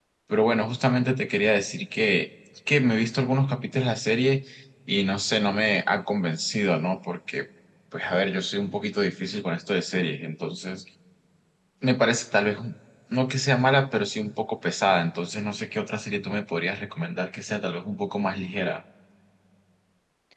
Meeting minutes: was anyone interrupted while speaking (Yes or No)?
No